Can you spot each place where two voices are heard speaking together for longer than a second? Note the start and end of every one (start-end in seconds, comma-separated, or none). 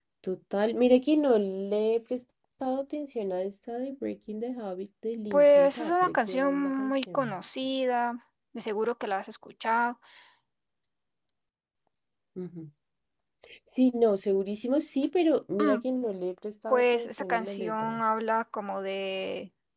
5.3-7.4, 16.7-18.0